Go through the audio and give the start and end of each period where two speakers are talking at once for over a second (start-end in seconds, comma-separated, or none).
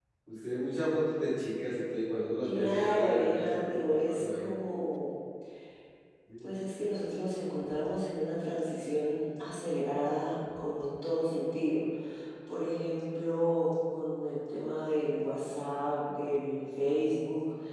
2.4-4.8